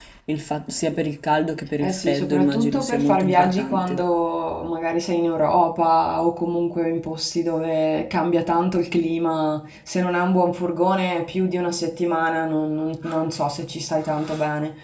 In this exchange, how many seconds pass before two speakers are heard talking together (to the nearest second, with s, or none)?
2 s